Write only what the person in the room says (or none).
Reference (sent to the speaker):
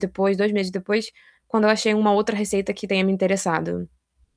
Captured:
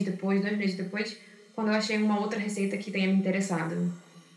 none